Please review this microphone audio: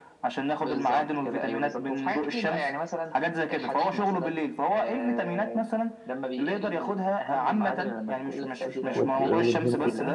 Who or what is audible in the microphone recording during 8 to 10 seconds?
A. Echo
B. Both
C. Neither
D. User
B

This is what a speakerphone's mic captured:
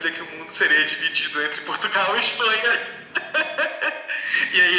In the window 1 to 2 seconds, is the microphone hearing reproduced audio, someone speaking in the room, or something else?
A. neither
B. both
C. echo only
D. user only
C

